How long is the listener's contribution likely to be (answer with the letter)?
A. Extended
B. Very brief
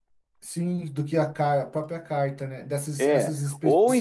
A